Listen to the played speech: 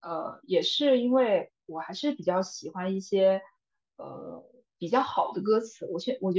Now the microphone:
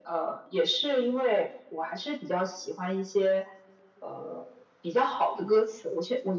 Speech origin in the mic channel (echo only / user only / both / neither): echo only